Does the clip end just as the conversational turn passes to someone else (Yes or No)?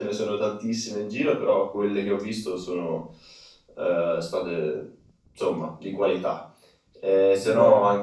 No